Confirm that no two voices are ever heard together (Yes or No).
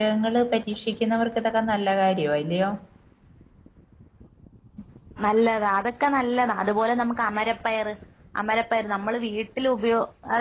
Yes